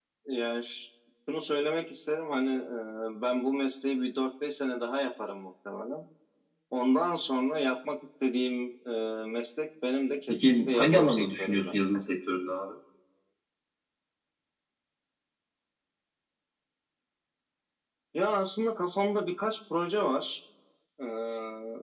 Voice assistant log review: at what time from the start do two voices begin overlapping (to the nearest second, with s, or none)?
10 s